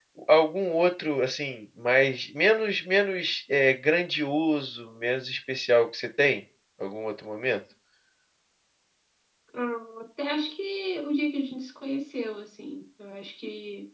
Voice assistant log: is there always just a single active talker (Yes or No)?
Yes